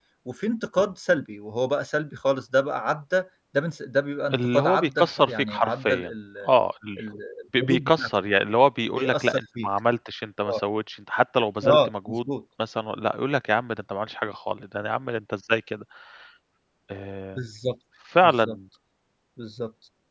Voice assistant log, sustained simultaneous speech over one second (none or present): present